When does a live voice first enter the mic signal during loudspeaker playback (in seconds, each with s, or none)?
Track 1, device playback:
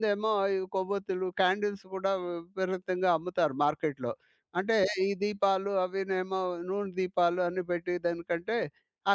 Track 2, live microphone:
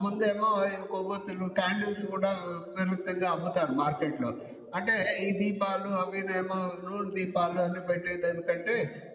none